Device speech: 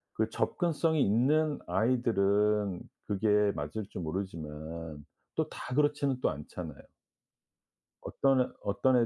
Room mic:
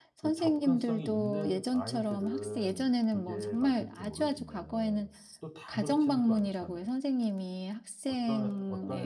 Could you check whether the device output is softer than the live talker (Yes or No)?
Yes